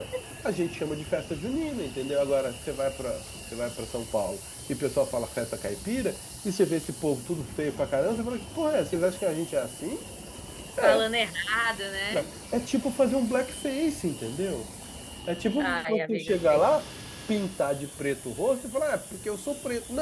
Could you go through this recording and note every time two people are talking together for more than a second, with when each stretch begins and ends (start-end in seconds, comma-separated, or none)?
15.6-16.8